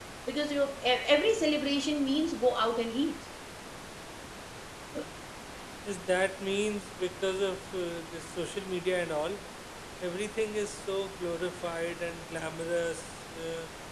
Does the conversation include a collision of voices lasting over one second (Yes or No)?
No